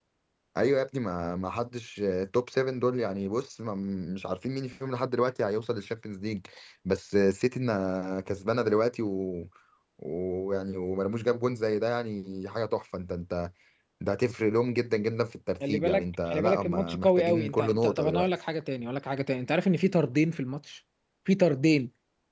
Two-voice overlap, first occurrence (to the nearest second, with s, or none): 16 s